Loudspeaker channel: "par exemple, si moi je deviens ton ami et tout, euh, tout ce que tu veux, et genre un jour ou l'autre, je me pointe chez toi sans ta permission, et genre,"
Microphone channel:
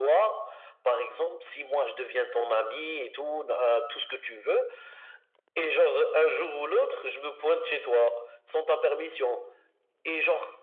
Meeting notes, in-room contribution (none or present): none